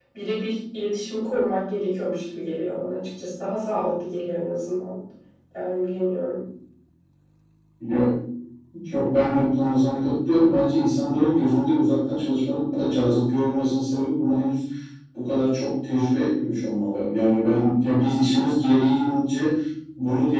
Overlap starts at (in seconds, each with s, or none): none